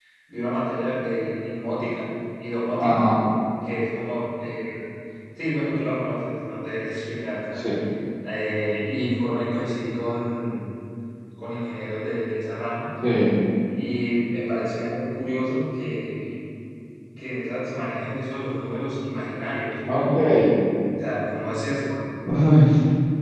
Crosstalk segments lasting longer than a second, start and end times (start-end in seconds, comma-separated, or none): none